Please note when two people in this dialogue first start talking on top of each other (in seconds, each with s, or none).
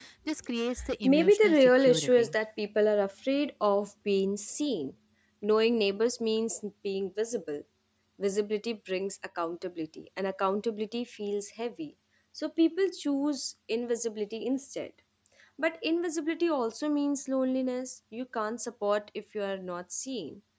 1.0 s